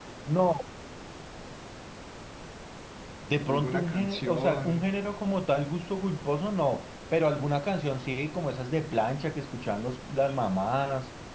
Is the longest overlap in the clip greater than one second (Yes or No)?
Yes